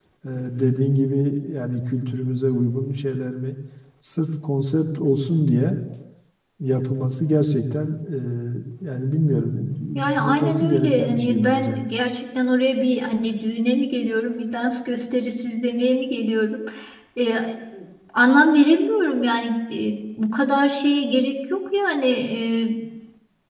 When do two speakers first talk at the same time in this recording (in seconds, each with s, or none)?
9.9 s